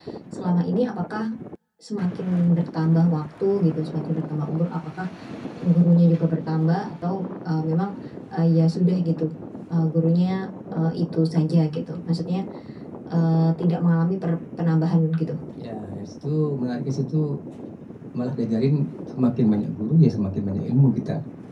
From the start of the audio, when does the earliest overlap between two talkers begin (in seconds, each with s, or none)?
none